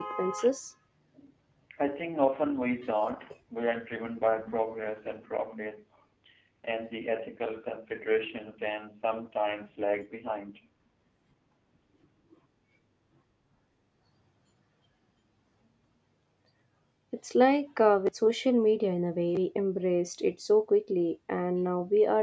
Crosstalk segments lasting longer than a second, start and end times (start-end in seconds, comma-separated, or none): none